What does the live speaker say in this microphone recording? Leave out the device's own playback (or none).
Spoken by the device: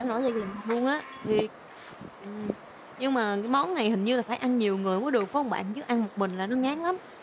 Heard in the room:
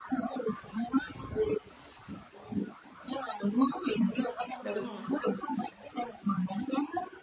Đúng rồi.